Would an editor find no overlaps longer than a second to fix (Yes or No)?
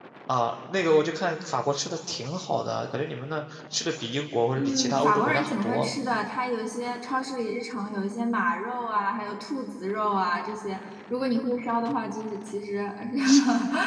No